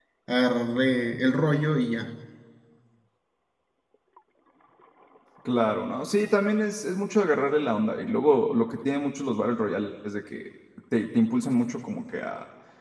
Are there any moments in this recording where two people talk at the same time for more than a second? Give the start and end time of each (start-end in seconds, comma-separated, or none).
none